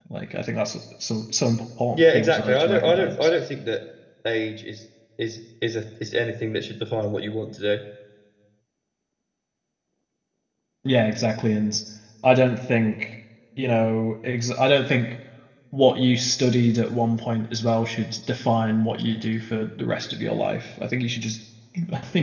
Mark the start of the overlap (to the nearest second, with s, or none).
2 s